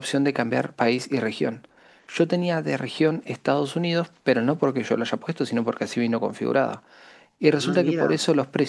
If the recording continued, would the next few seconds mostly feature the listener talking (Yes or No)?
No